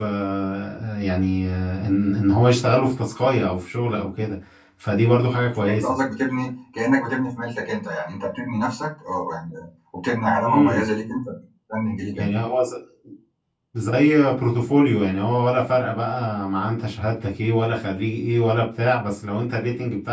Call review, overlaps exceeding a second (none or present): none